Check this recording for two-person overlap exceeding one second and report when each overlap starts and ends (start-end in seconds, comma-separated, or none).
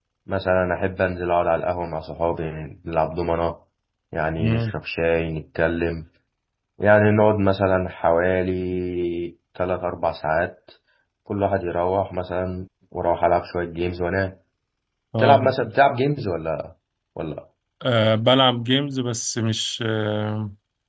none